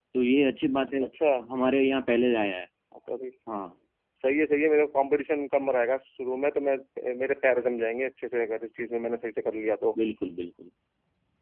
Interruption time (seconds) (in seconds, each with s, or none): none